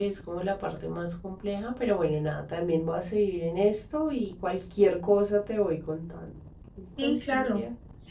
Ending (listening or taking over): taking over